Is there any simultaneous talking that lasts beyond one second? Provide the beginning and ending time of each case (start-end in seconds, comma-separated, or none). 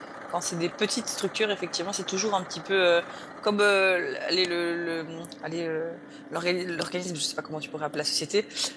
none